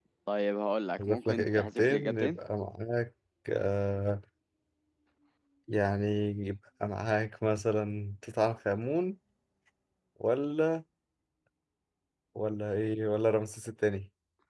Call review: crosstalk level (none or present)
present